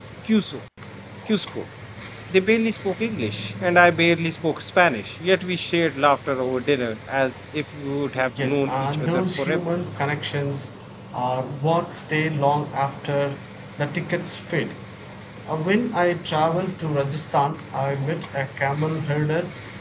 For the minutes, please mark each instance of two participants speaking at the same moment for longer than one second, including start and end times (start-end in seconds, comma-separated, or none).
8.4-9.6